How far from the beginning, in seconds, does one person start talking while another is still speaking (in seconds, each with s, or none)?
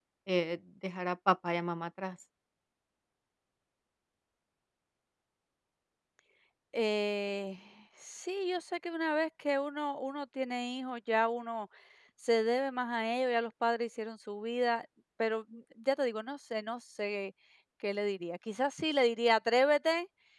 none